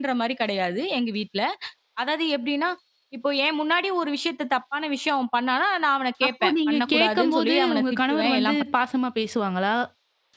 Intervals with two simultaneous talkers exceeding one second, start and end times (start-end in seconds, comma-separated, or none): 6.3-8.6